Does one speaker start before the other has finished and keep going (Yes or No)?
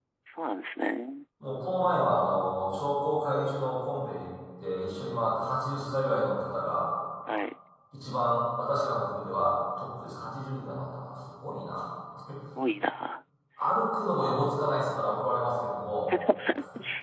No